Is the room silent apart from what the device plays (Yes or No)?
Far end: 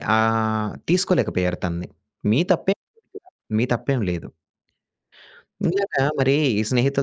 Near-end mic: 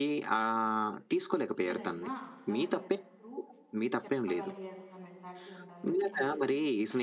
No